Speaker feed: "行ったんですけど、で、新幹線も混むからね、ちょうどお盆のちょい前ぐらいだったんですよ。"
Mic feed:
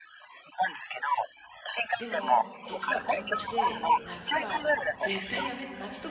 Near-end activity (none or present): present